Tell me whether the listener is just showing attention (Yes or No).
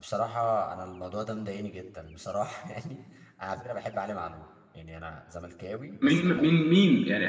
No